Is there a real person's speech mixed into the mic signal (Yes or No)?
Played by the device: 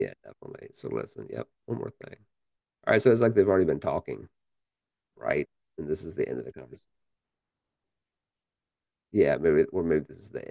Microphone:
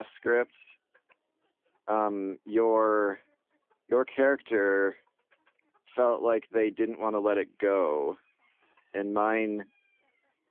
Yes